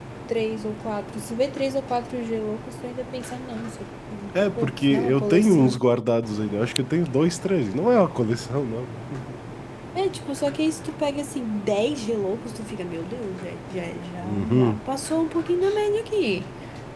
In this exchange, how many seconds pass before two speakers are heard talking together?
4.3 s

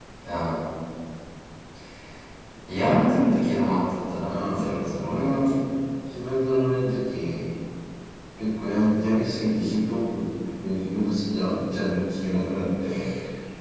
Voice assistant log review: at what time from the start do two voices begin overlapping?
4.3 s

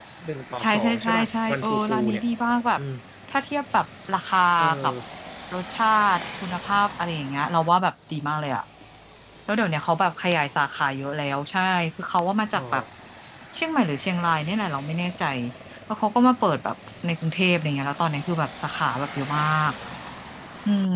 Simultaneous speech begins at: 0.6 s

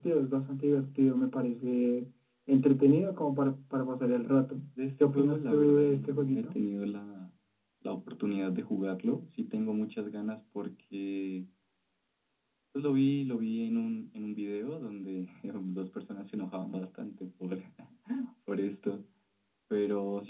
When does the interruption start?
5.0 s

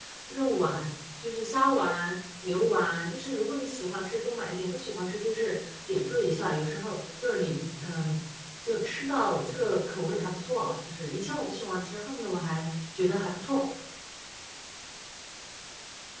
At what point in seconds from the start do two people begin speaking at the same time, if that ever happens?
none

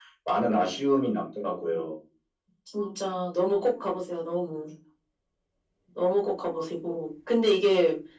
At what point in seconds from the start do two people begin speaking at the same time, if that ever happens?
none

